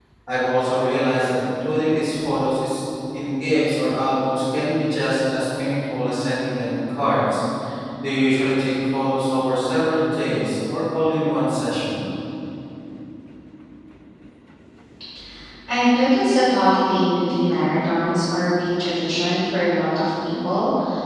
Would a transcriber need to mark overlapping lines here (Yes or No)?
No